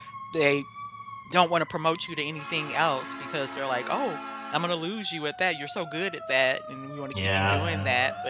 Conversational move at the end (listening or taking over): listening